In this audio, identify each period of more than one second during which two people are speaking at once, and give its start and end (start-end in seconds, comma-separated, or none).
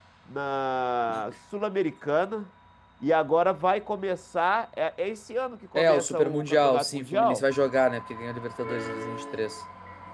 5.8-7.4